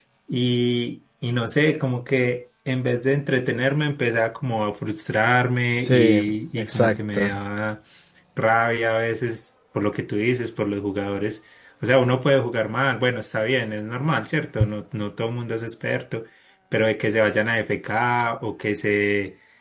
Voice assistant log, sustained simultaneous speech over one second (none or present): present